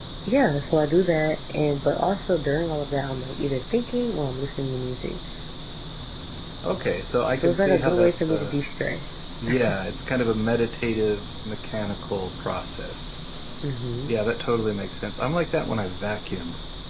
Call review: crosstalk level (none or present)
present